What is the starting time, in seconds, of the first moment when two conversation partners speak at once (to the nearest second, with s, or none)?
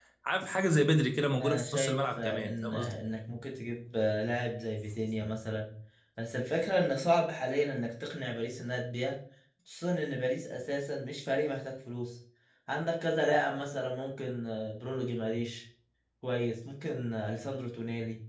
1 s